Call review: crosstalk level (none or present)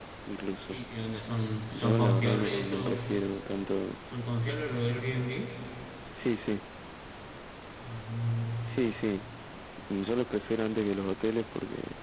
present